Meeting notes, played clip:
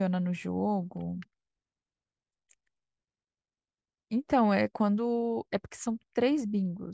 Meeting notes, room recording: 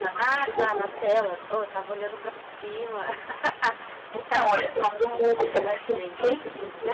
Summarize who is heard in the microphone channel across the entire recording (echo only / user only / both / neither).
both